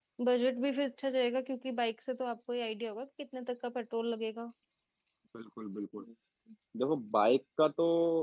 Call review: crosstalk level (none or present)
none